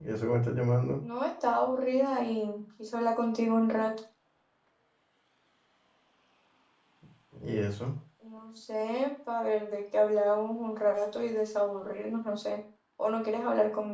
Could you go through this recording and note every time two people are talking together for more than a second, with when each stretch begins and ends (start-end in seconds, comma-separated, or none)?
none